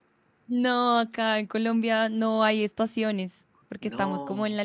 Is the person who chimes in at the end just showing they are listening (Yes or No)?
Yes